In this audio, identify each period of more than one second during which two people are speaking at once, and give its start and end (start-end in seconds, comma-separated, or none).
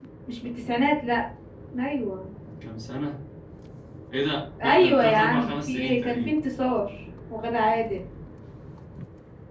4.6-6.3